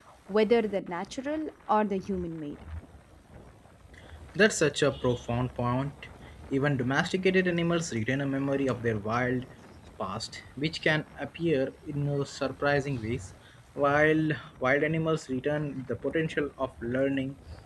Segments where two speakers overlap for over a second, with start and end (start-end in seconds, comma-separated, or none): none